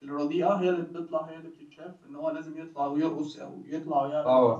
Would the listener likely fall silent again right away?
No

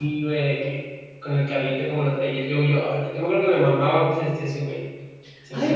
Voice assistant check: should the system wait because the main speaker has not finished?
No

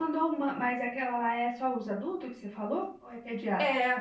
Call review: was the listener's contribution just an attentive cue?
No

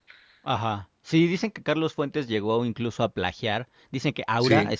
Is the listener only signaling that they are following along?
Yes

